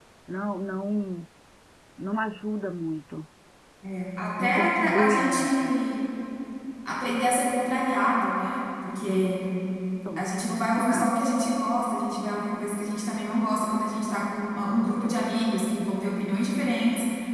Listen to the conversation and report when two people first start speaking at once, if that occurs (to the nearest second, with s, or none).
4 s